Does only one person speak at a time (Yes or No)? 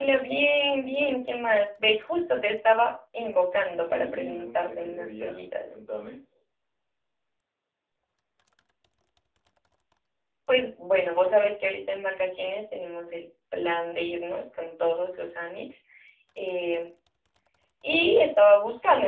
No